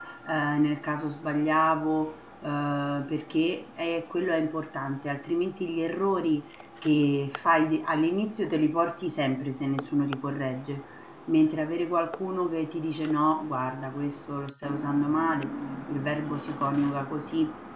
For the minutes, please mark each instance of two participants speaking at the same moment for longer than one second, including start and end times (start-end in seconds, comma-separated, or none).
none